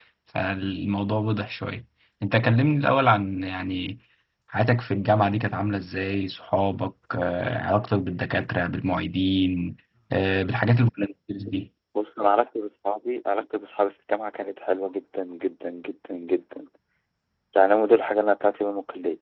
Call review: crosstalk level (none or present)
none